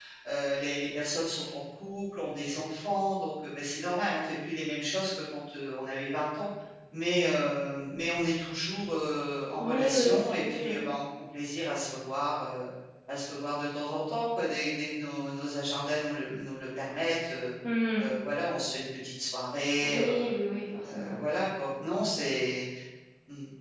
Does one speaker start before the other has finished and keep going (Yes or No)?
Yes